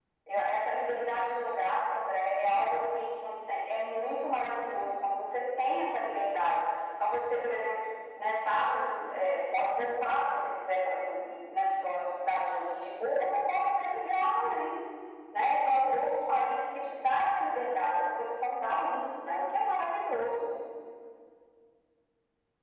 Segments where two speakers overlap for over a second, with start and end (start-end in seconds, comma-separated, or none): none